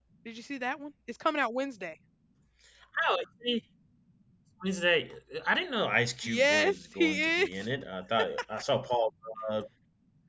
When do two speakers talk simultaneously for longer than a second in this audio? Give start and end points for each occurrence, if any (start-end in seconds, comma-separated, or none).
6.2-7.7